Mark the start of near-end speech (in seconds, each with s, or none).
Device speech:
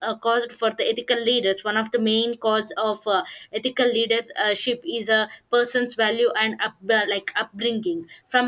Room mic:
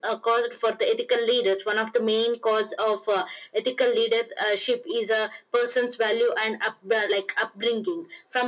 none